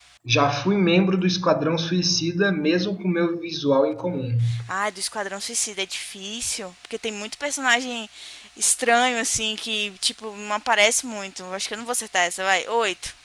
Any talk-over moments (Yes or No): No